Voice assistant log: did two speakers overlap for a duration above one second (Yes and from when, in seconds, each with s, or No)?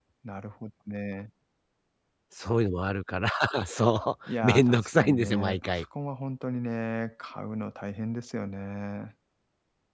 Yes, from 4.3 s